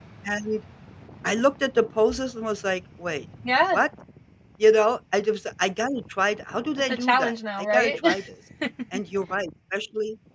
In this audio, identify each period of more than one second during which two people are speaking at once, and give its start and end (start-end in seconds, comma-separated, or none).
6.8-8.0